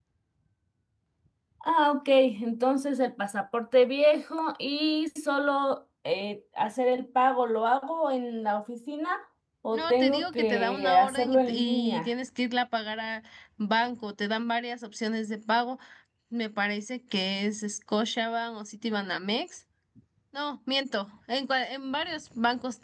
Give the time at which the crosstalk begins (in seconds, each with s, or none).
9.7 s